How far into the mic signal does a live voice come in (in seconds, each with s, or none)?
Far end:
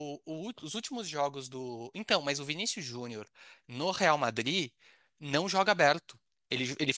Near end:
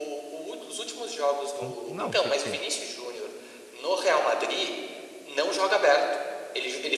1.5 s